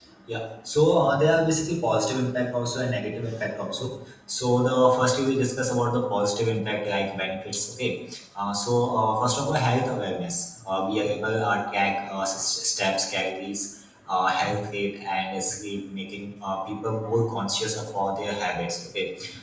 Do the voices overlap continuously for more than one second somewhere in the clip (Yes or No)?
No